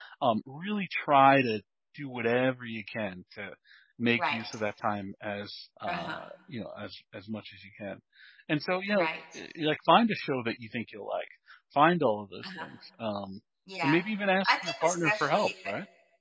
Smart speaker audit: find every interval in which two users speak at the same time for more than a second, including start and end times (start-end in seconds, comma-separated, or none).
14.5-15.7